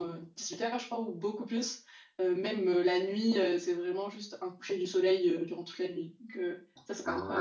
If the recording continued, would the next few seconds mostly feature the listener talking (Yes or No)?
Yes